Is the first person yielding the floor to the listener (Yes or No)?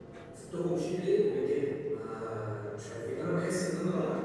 No